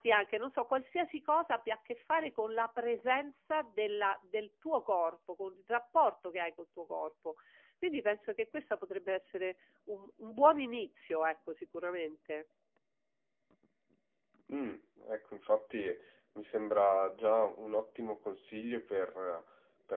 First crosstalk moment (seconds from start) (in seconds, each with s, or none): none